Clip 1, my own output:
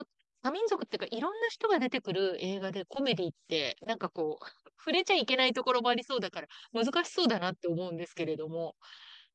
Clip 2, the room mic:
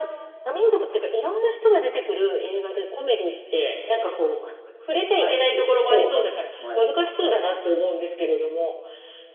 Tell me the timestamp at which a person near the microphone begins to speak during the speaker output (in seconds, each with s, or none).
5.1 s